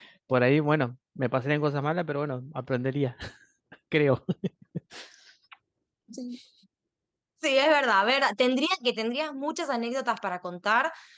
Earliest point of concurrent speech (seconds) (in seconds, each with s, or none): none